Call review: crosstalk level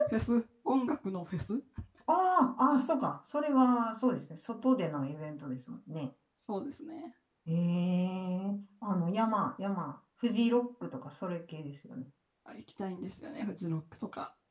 none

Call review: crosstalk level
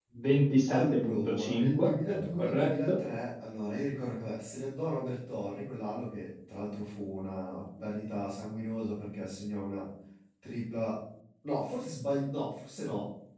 present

